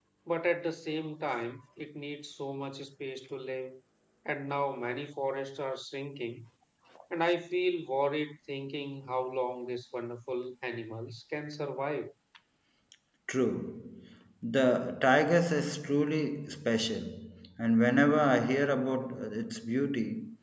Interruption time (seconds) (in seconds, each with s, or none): none